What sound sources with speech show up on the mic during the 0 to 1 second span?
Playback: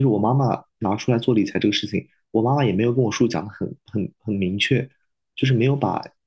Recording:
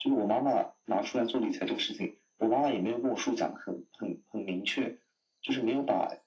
echo only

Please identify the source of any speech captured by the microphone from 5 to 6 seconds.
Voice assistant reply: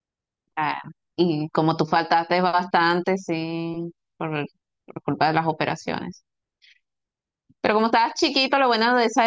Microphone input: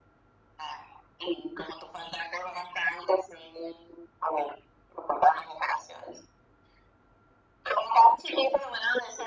echo only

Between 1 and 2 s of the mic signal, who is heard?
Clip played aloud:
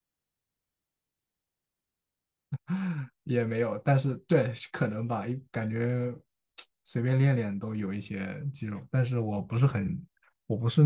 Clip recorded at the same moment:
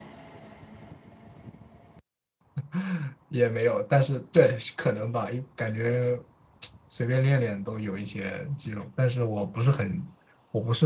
neither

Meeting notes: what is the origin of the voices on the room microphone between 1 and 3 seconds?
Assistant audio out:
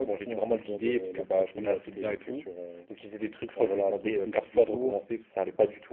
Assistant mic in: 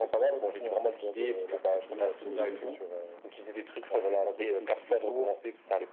both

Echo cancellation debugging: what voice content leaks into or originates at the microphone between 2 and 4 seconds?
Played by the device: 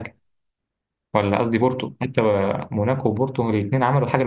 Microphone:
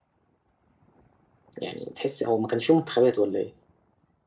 user only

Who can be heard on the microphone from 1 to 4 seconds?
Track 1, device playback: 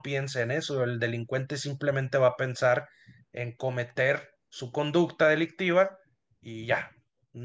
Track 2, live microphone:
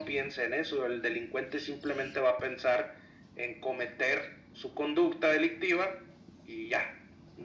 echo only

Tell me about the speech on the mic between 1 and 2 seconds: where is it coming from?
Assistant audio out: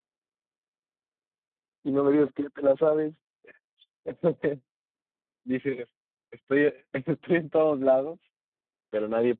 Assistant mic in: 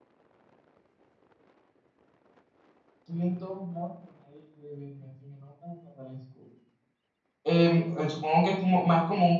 neither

